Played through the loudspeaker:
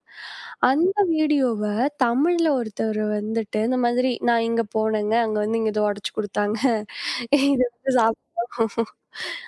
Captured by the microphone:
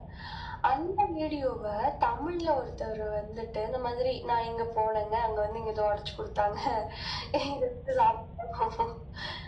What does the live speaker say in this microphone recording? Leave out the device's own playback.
none

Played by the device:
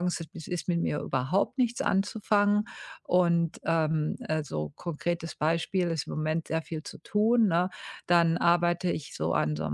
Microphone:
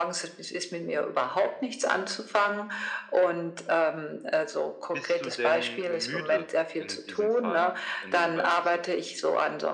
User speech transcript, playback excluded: Bist du denn müde in diesem Fall in diesem Beispiel zum Beispiel?

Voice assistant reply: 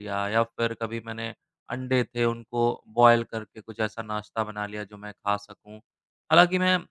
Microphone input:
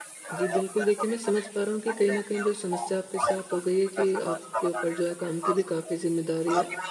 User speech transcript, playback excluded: जी, बिल्कुल देखिए मैं समझ पा रहा हूँ कि कहीं न कहीं जो समस्या आपके साथ हो गई है कि आपके ऊपर जो है काम की भी काफ़ी ज़िम्मेदारी है

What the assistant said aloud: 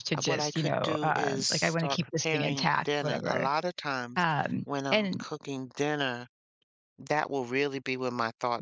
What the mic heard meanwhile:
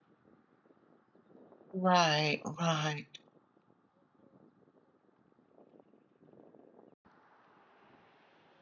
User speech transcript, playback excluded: Right, right.

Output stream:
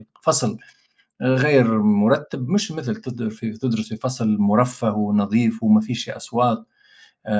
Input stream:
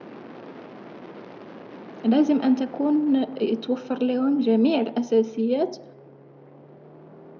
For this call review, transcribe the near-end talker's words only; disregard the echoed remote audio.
لازم أن تكون يتوفر لهم جميع الأساسيات

